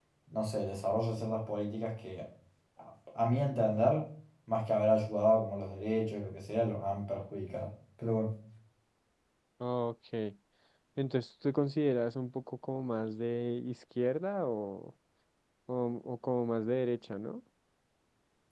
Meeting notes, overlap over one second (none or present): none